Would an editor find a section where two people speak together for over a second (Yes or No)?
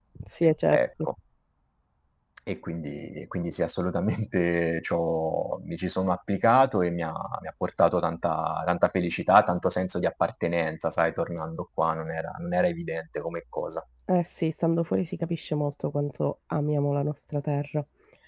No